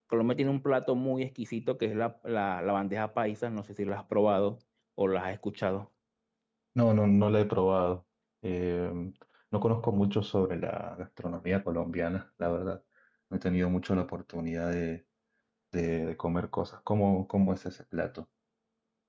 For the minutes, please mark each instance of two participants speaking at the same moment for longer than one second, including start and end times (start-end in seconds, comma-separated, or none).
none